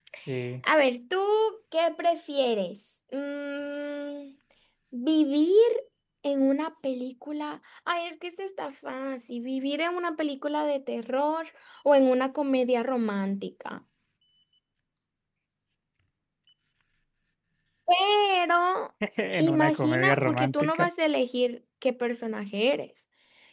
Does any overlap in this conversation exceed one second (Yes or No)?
Yes